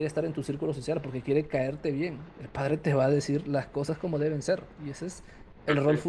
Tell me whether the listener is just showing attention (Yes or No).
No